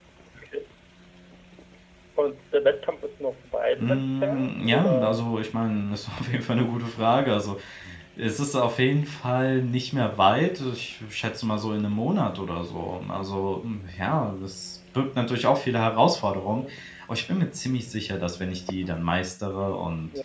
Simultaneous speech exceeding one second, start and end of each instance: 3.8-5.3

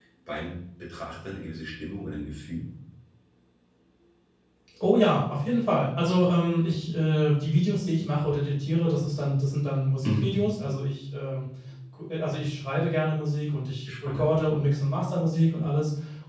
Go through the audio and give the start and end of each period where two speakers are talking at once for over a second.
none

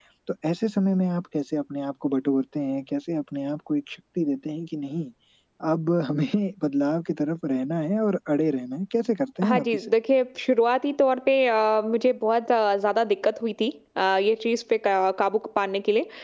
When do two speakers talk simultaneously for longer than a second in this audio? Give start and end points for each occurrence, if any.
none

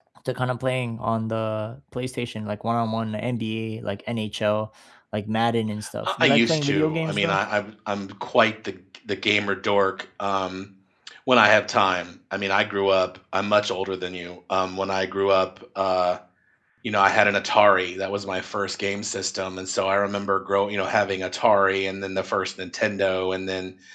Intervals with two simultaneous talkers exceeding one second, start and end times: 6.0-7.4

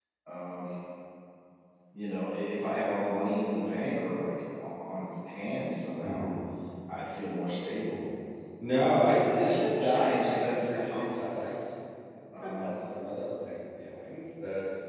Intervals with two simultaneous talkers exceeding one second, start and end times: 8.8-11.2

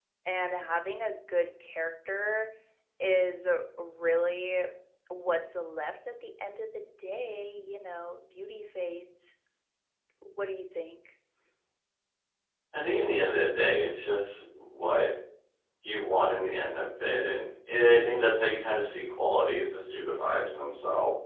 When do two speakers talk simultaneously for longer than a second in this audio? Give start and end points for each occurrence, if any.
none

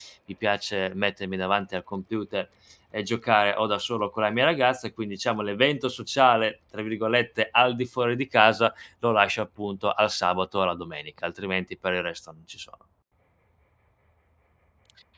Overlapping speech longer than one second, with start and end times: none

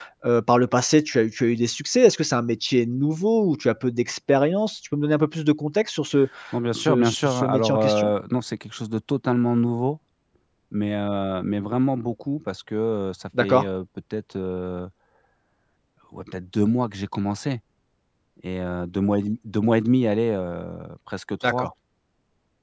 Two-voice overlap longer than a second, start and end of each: 6.8-8.1

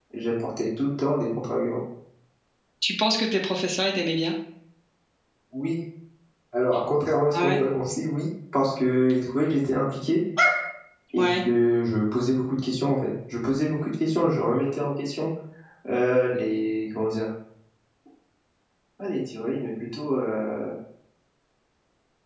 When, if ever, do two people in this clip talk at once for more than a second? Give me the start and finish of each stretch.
none

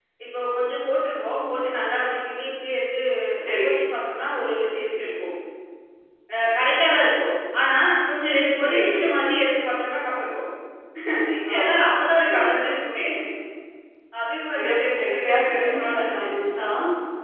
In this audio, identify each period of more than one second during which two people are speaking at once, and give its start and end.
14.6-16.3

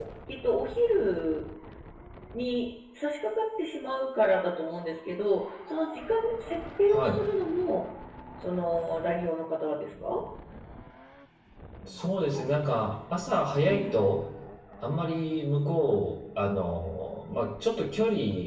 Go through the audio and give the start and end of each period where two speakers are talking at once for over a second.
none

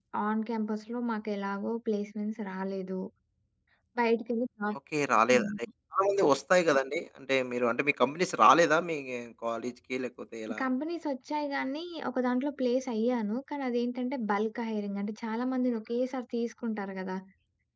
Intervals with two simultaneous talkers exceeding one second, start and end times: none

